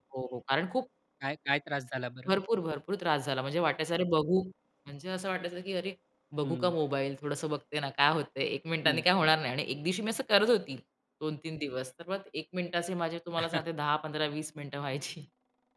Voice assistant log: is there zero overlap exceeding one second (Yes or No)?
Yes